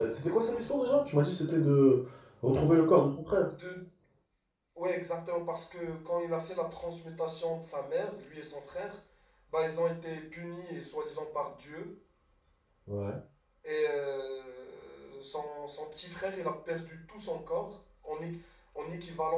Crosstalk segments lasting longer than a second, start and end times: none

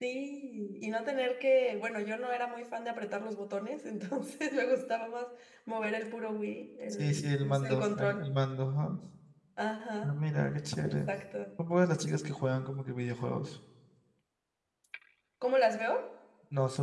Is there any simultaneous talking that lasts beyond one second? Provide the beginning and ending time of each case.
6.9-8.3

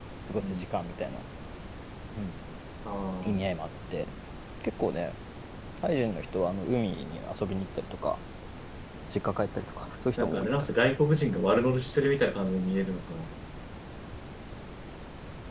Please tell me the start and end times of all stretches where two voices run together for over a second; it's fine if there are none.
none

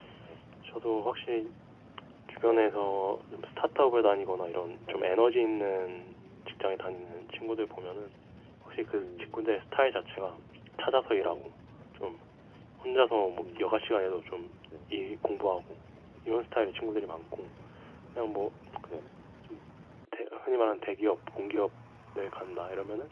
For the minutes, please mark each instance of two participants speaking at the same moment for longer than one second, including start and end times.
none

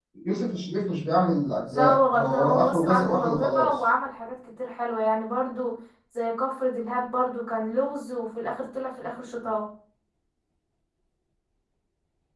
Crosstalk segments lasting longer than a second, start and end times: 1.7-3.7

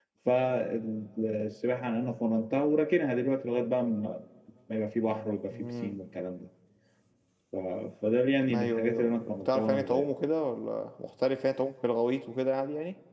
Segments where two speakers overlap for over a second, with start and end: 8.5-10.1

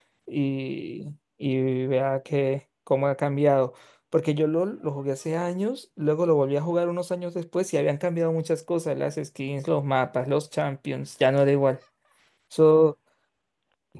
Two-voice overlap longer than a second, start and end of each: none

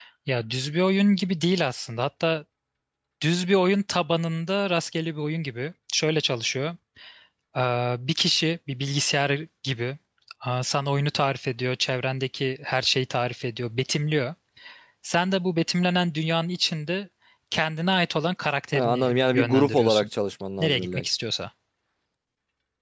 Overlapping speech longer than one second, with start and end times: 18.7-20.1

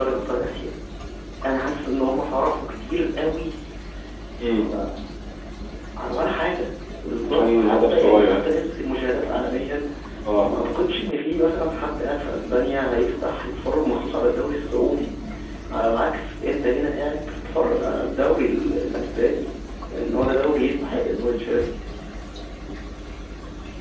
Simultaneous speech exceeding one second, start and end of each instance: 7.2-8.5

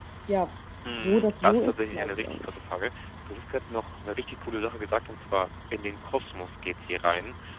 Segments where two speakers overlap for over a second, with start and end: 1.0-2.5

